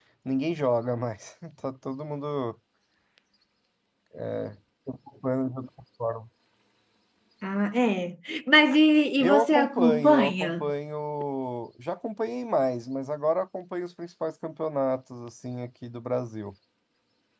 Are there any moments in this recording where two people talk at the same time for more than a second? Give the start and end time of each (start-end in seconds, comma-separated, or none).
9.2-10.7